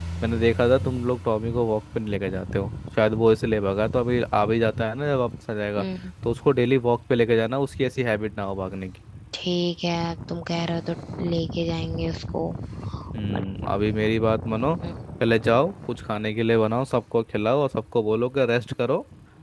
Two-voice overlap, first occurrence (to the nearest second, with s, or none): none